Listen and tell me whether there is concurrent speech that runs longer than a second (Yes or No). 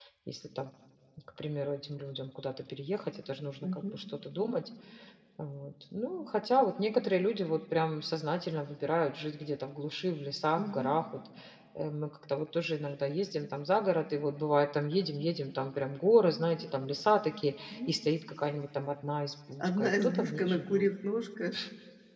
Yes